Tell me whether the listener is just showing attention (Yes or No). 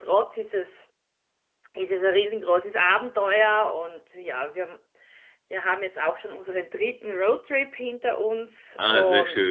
No